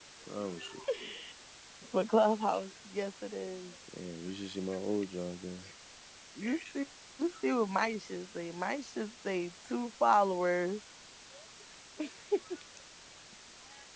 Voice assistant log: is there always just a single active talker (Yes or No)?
Yes